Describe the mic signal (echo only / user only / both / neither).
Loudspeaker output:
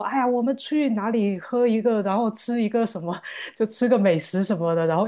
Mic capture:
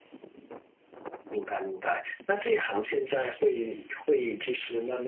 user only